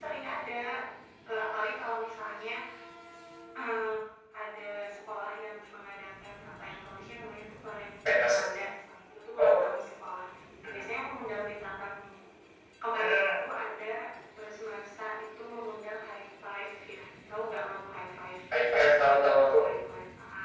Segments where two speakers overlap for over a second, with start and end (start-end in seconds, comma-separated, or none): none